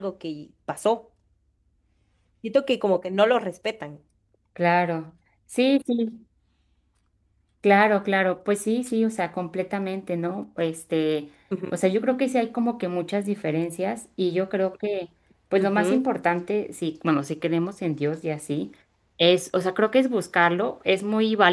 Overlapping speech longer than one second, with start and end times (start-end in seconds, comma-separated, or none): none